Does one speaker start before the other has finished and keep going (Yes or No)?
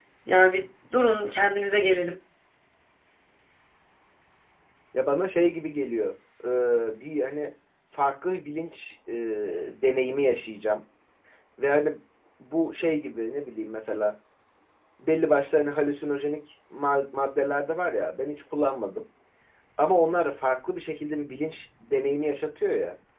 No